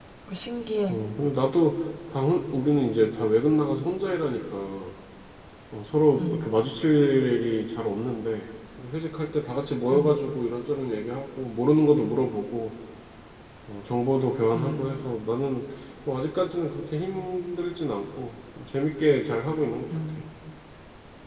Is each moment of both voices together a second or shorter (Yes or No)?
Yes